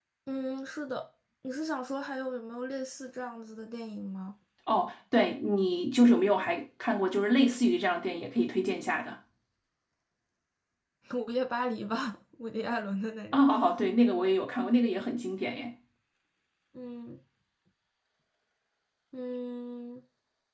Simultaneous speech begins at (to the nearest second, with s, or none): none